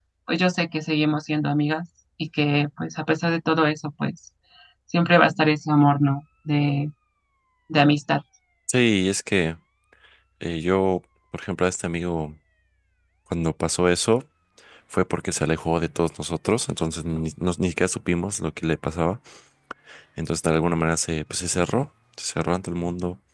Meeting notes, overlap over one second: none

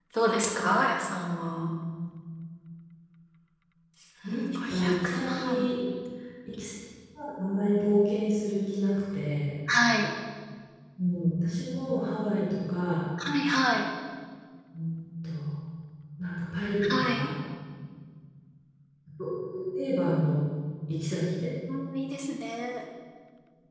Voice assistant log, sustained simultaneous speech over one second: present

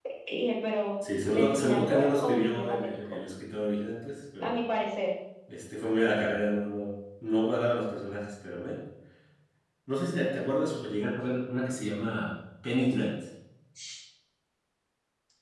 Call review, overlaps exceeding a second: present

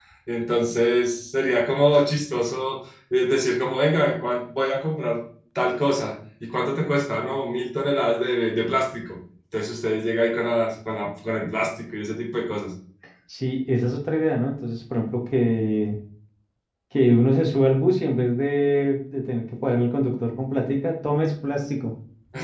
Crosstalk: none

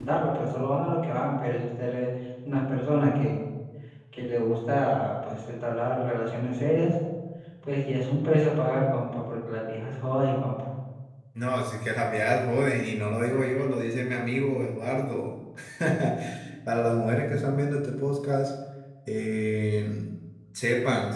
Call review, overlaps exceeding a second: none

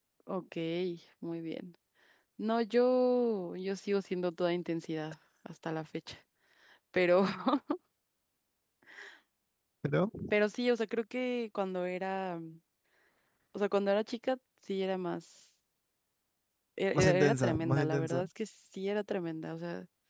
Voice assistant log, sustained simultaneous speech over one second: present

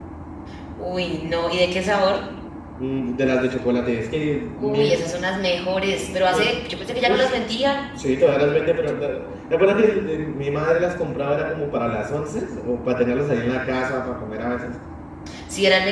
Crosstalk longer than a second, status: none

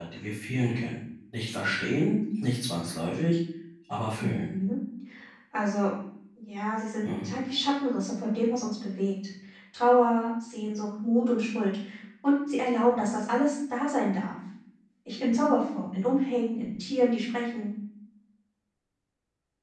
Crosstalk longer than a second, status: none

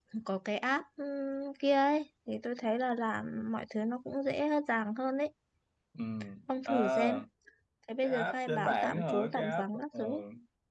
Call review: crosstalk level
present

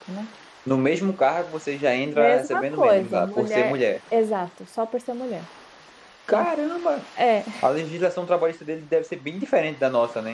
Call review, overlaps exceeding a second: present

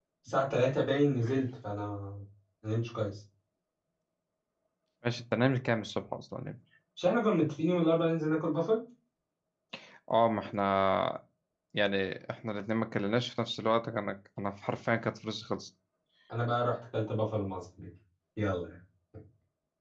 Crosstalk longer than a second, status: none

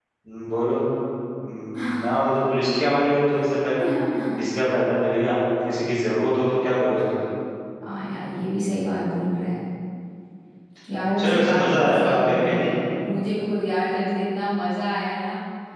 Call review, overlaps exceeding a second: present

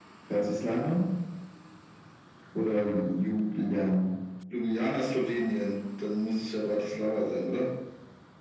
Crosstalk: none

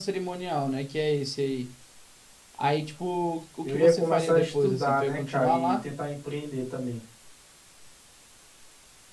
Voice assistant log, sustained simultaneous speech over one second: present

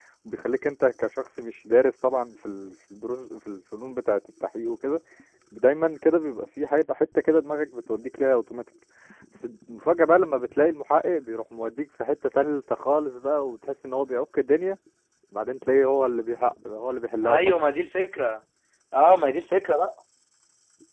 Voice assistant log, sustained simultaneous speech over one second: none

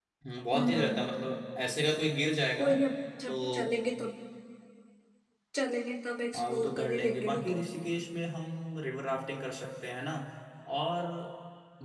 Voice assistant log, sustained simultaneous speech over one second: present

